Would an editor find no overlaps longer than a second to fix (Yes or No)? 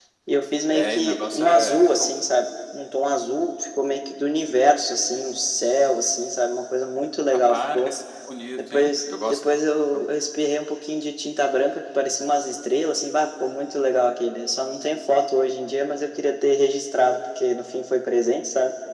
No